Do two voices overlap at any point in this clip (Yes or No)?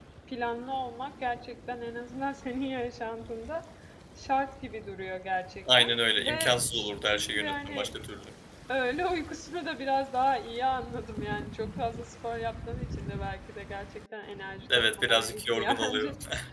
Yes